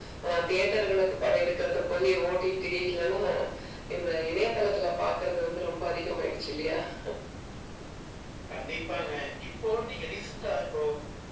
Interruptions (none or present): none